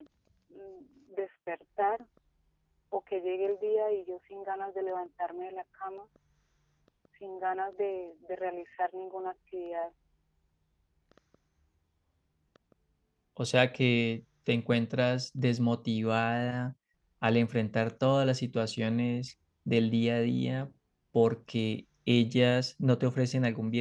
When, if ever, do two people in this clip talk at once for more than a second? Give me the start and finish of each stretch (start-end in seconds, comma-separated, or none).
none